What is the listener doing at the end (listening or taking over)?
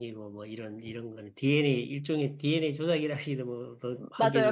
taking over